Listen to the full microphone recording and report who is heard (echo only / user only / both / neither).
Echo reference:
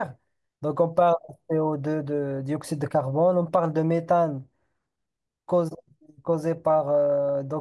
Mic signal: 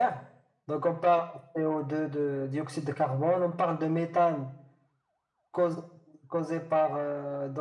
echo only